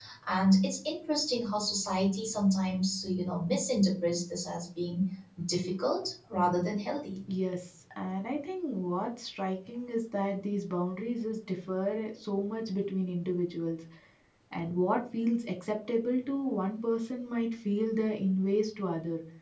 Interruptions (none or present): none